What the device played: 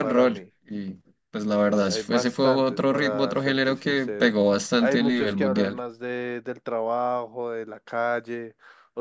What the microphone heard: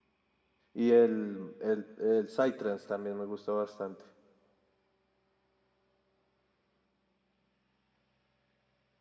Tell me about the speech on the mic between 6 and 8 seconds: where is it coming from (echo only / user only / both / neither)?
neither